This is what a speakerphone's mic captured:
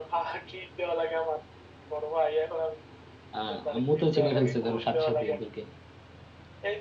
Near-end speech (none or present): present